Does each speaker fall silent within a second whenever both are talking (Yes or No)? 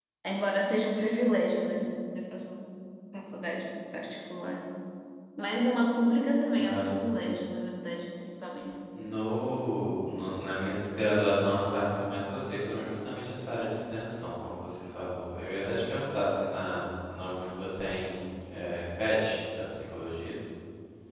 Yes